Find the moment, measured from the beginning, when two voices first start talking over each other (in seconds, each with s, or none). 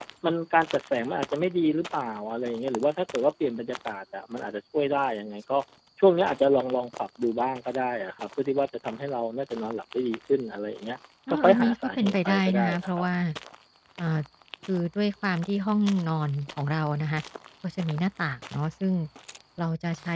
11.3 s